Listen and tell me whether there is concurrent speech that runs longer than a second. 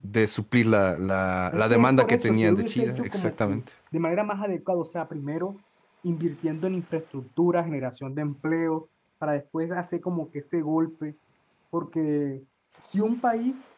Yes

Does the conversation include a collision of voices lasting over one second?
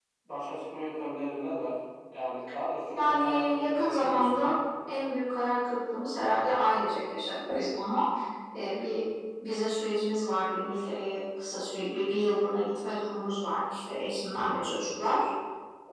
Yes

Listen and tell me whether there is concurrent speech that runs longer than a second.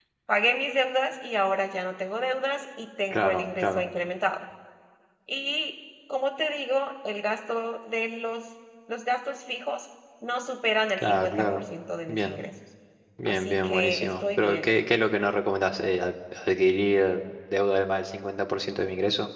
Yes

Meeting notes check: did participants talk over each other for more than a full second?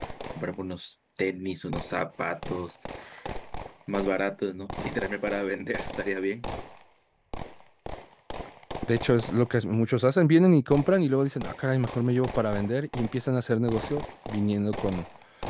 No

